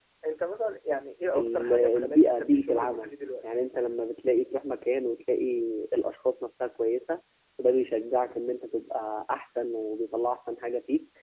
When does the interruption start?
1.3 s

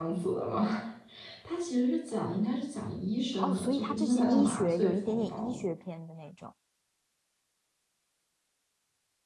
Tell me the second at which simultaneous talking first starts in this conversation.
3.4 s

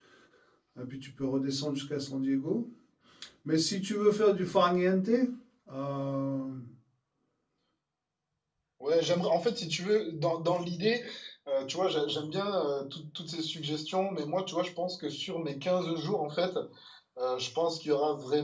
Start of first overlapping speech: none

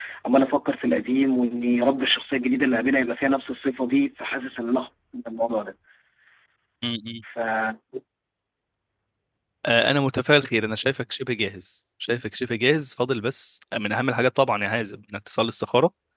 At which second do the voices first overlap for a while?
none

